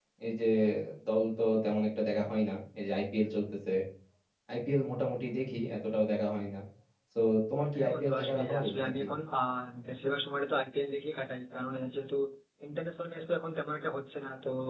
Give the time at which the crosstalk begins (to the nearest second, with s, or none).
8 s